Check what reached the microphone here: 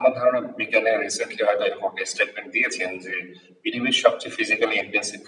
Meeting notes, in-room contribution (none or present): none